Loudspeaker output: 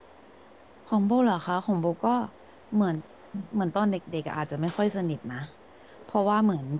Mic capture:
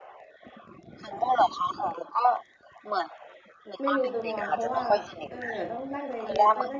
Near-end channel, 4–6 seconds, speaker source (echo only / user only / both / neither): both